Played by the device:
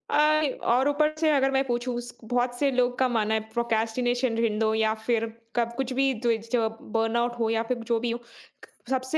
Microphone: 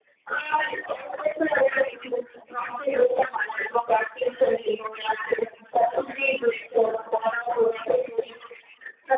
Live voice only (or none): none